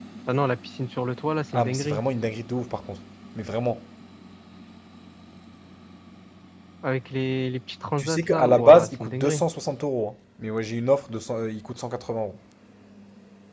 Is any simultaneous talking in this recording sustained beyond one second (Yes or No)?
Yes